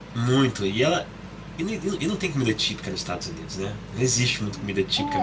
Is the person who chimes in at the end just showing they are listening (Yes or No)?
No